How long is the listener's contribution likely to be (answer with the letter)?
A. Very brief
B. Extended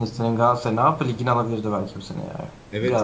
B